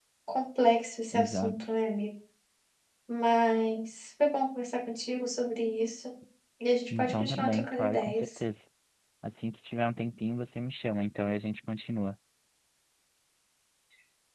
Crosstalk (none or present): present